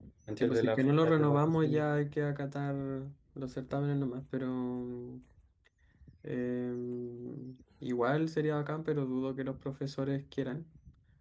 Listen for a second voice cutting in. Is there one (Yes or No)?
Yes